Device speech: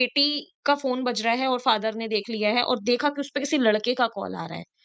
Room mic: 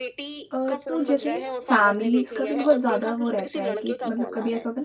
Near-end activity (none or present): present